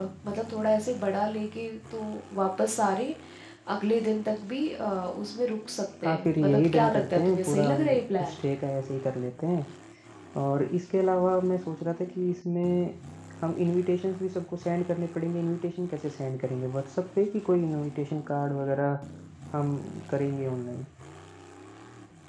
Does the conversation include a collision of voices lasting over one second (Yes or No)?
Yes